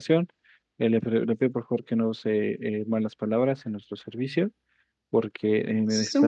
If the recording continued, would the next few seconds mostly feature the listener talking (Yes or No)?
Yes